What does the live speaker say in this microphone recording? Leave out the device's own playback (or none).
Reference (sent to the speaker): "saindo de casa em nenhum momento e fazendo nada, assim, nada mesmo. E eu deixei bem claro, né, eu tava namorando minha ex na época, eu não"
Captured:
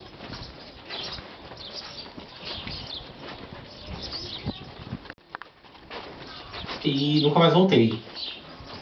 e nunca mais voltei.